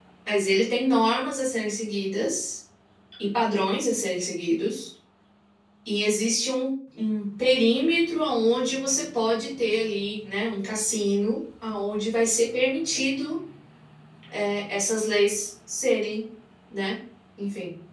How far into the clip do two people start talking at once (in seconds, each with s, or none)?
none